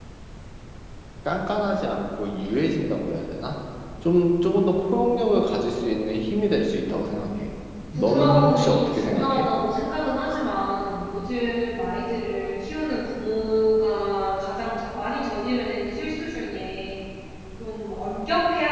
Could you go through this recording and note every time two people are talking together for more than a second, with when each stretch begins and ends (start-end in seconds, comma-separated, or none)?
7.9-9.5